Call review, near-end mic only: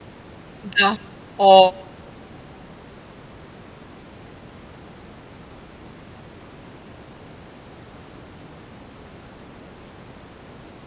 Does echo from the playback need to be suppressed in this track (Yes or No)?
No